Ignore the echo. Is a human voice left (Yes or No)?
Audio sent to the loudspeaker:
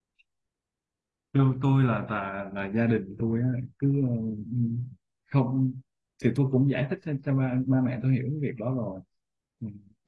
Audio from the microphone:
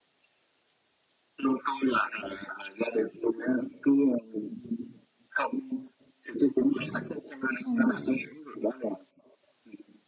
Yes